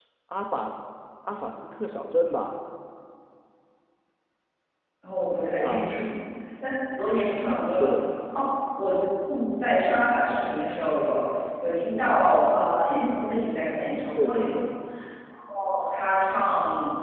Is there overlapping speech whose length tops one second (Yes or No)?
No